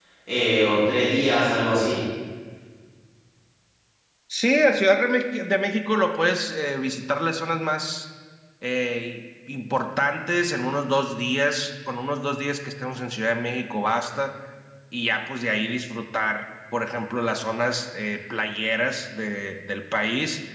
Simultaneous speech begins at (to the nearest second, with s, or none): none